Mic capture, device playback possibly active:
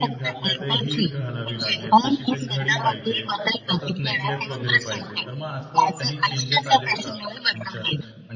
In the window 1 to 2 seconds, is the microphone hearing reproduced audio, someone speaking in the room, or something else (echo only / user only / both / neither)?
both